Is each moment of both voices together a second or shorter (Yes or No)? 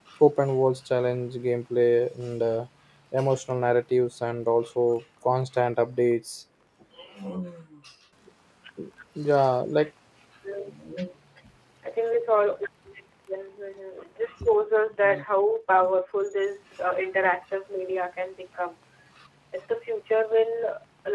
Yes